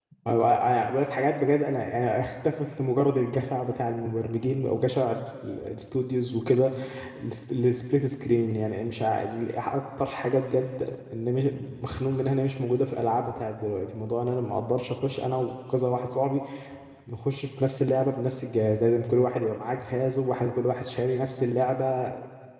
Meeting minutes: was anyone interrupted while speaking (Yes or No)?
No